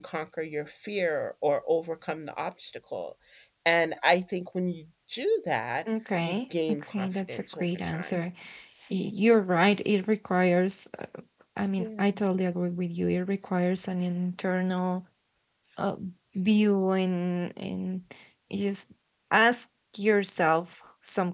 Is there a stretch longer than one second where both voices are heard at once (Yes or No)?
Yes